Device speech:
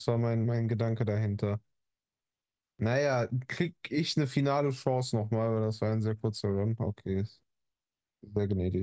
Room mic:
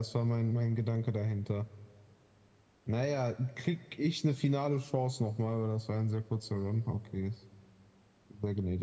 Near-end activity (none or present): none